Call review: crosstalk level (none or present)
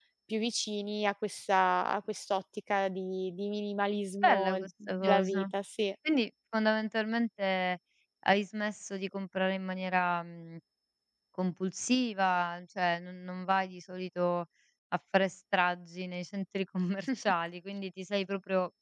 present